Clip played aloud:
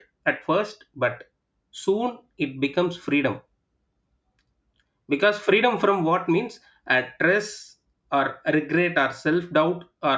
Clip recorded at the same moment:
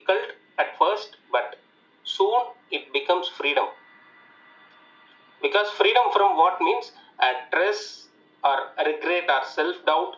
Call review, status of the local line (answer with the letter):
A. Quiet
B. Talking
A